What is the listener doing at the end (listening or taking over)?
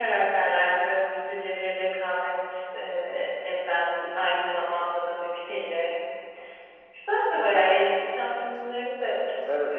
taking over